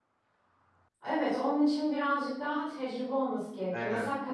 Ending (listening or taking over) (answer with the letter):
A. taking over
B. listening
B